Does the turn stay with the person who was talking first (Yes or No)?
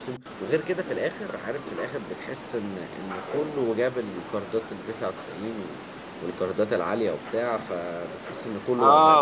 No